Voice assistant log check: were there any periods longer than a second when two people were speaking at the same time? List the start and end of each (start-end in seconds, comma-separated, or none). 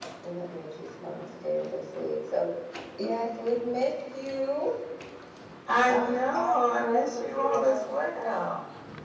5.9-8.4